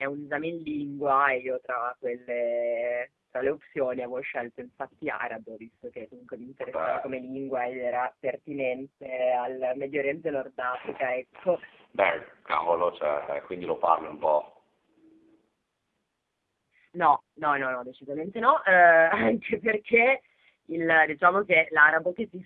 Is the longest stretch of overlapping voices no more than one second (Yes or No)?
Yes